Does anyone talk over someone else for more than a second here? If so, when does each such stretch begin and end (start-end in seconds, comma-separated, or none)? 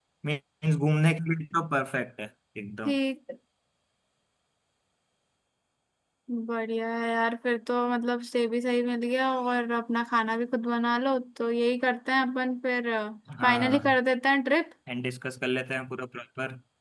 none